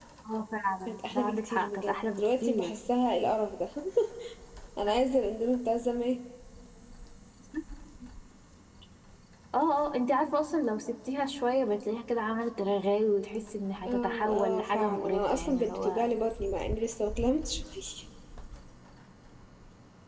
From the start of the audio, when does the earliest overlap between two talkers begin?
0.9 s

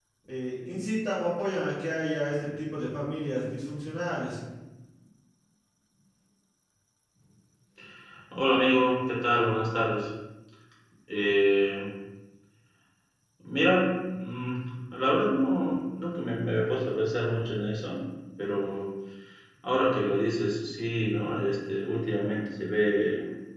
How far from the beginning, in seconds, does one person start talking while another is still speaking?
none

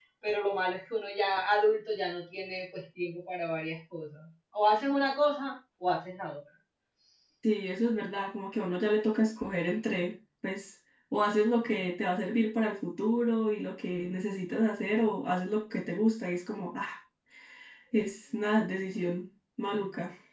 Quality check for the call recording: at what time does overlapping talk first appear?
none

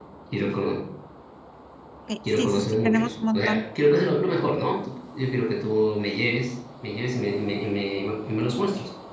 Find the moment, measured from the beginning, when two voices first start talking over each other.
2.3 s

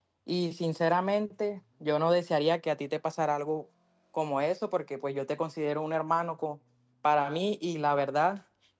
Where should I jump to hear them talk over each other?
none

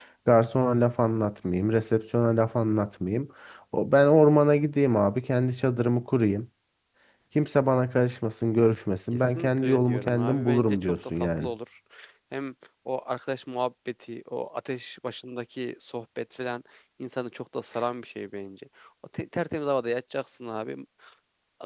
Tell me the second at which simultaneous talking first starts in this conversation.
9.1 s

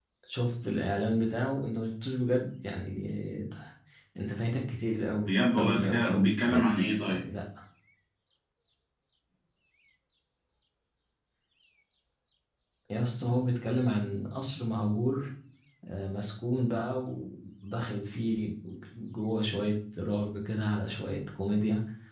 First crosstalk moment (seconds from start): 5.2 s

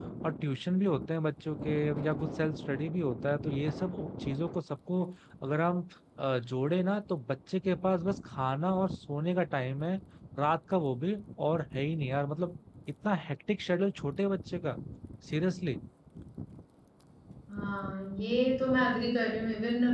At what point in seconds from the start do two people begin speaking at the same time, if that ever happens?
none

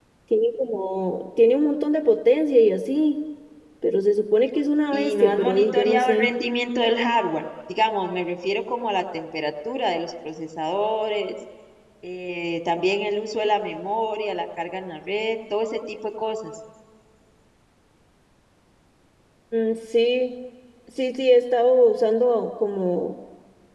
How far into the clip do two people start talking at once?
4.9 s

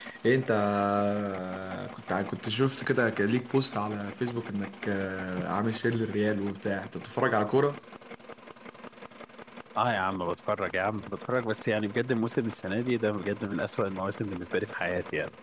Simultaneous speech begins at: none

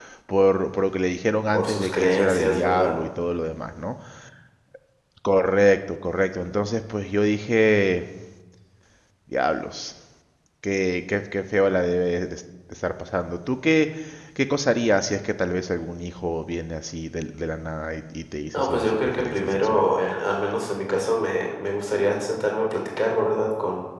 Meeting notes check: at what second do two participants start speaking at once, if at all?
1.5 s

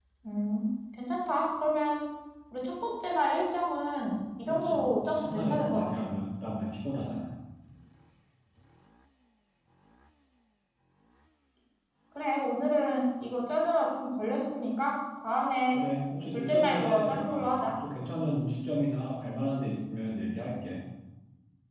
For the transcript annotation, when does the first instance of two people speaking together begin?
4.5 s

